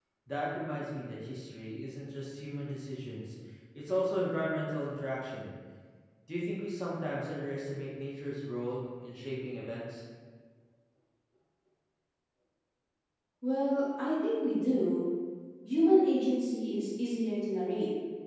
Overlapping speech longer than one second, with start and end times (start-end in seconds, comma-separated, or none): none